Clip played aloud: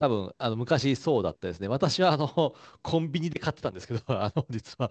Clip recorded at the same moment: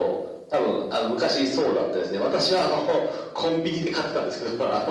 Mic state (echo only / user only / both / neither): echo only